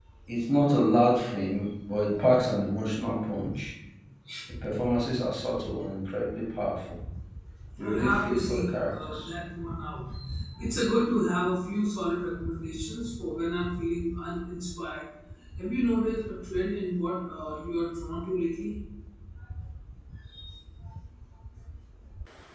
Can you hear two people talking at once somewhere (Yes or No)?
Yes